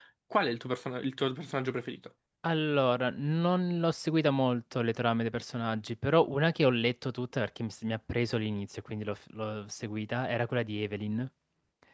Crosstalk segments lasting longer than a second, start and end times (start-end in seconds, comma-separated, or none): none